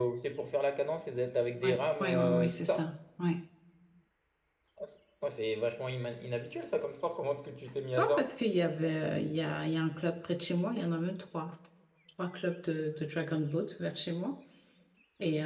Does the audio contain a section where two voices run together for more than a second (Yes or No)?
Yes